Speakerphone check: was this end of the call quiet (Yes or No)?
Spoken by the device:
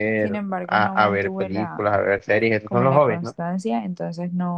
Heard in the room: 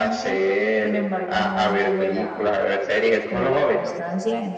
Yes